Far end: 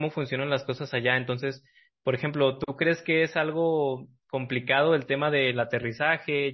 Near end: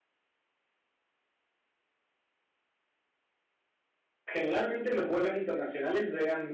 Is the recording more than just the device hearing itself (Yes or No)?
Yes